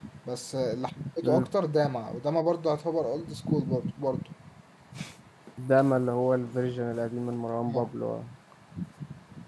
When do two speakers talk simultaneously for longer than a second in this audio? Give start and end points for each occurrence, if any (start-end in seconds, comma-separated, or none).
none